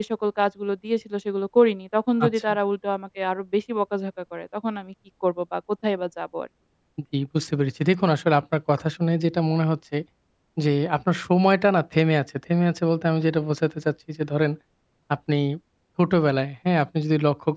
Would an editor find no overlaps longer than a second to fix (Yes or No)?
Yes